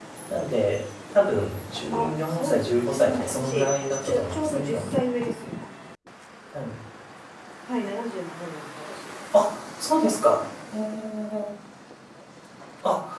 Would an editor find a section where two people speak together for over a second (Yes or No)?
Yes